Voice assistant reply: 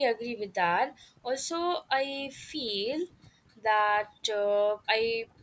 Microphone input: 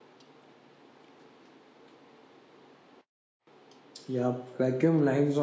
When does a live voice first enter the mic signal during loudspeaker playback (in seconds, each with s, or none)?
4.1 s